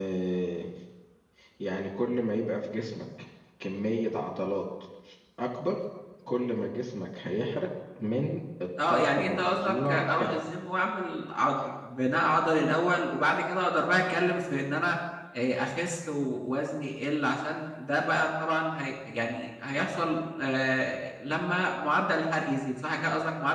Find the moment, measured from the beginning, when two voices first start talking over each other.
8.8 s

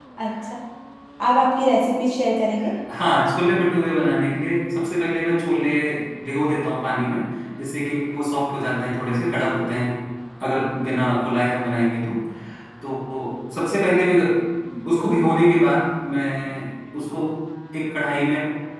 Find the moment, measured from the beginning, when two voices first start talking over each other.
none

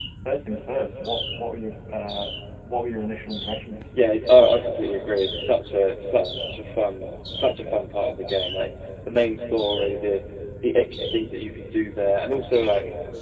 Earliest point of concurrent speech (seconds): none

